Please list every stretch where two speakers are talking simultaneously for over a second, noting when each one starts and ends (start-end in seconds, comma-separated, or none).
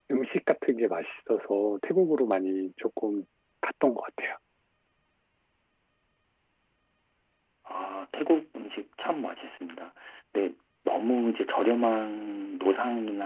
none